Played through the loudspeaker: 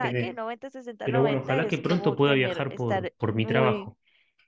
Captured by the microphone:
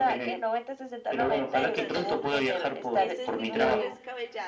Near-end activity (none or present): present